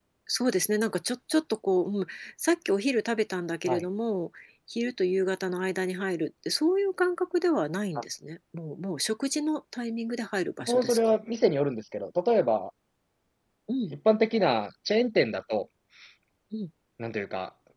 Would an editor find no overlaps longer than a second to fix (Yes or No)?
Yes